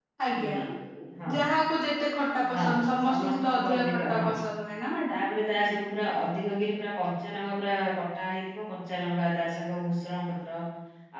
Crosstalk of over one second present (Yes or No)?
Yes